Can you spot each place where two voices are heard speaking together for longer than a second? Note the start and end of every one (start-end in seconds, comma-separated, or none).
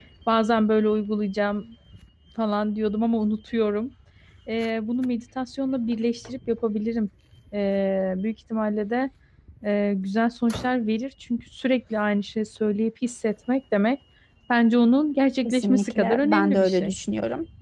15.4-17.0